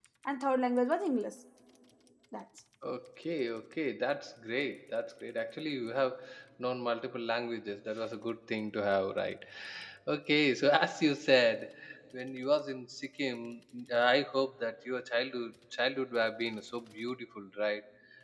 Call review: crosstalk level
none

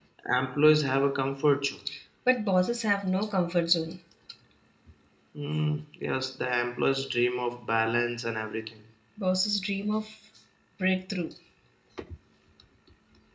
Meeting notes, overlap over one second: none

